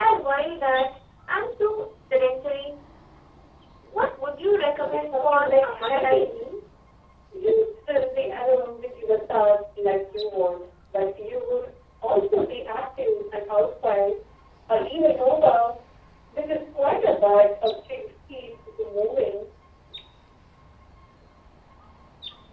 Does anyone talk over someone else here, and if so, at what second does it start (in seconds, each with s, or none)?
4.7 s